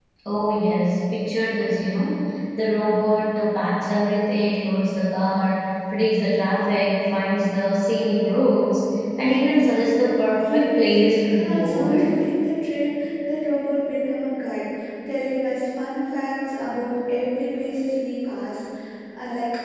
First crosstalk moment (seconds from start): 10.4 s

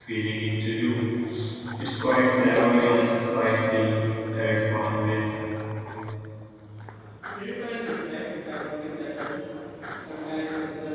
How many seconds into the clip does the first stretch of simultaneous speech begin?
none

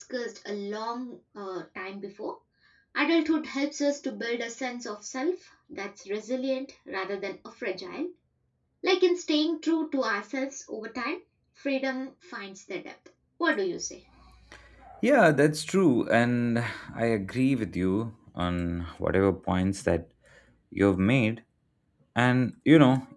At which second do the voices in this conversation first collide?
none

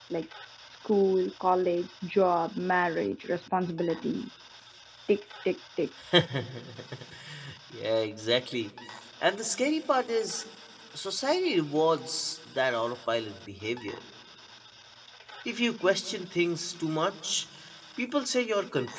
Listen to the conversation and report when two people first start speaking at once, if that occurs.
none

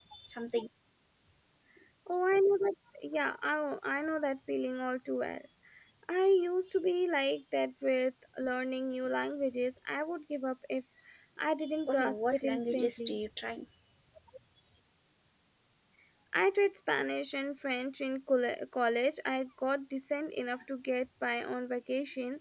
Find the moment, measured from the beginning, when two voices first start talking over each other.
11.9 s

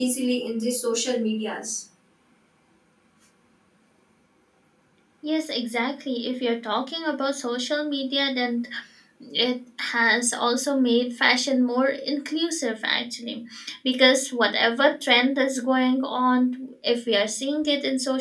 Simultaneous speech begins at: none

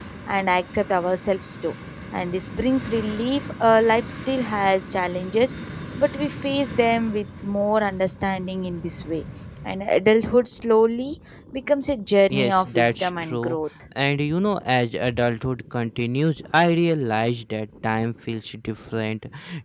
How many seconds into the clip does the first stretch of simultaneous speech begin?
12.3 s

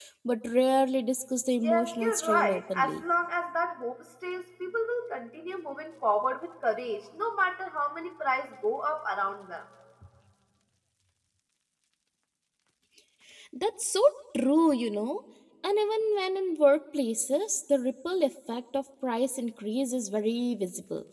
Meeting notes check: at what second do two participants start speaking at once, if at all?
1.6 s

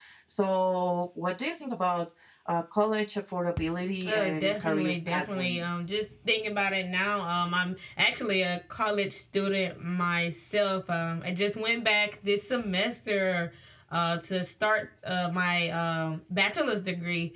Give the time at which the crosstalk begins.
4.1 s

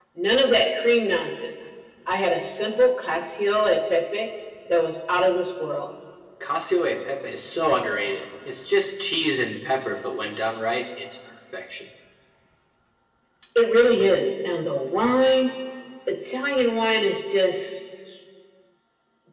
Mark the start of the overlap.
none

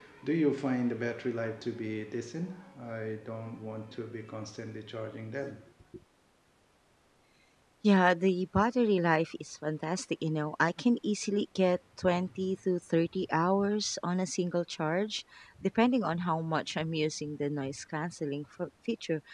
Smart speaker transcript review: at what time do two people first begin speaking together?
none

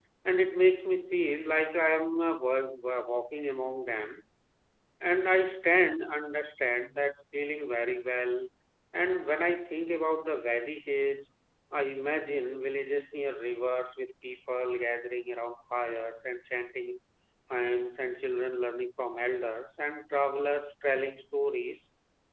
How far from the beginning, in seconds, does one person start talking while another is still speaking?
none

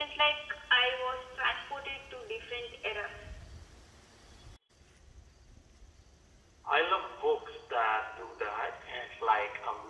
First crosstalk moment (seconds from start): none

